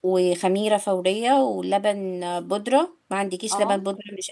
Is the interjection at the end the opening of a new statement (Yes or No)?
No